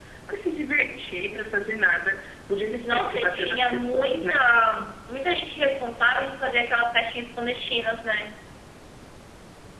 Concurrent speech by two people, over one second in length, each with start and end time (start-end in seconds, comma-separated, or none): 2.8-4.4